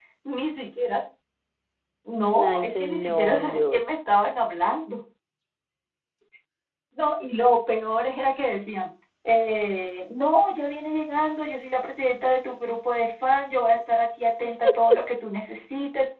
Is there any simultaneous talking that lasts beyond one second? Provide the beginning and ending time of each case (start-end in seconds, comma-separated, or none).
2.5-3.9